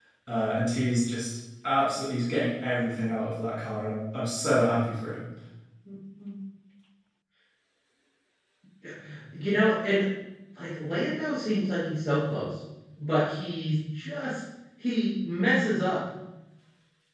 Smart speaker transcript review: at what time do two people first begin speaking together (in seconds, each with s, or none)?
none